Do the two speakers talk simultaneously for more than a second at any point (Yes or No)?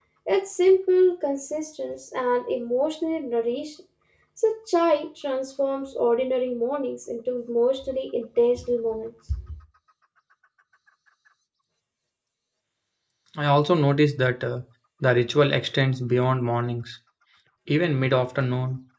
No